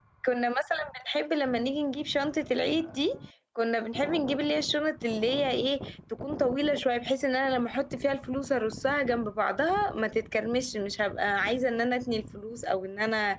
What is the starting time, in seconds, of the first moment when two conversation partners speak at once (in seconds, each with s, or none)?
none